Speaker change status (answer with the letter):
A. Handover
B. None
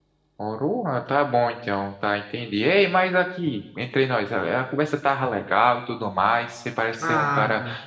B